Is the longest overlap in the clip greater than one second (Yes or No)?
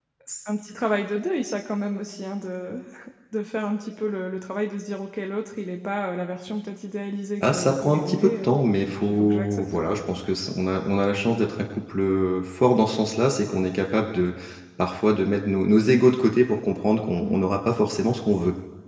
Yes